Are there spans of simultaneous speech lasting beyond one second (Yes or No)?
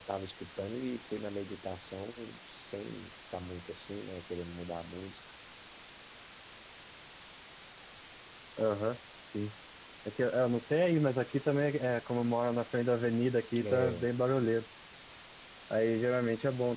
No